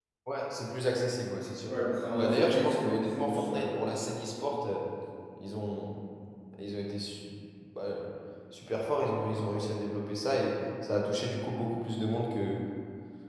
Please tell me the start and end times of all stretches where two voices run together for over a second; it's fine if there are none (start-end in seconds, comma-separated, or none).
2.2-3.6